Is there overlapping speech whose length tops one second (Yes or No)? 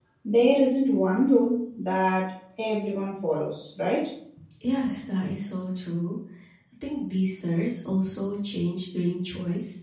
No